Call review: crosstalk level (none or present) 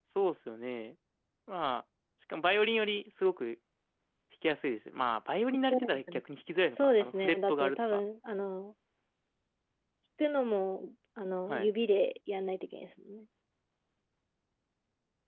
present